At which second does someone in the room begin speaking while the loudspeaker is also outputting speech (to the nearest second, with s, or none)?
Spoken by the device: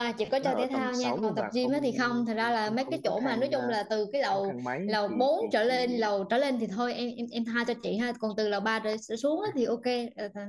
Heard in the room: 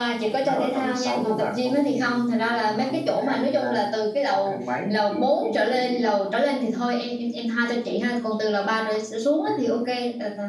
none